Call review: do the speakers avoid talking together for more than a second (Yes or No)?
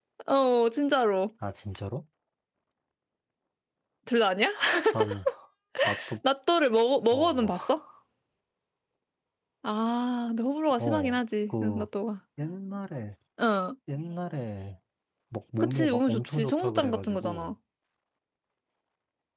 No